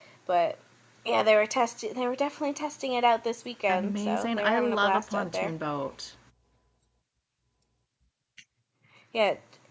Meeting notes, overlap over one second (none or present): present